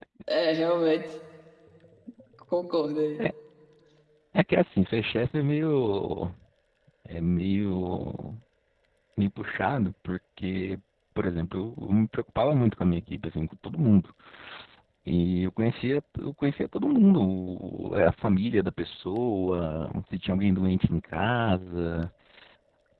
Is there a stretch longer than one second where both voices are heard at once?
No

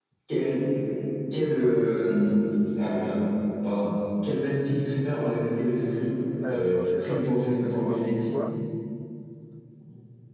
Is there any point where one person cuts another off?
Yes, from 6.4 s

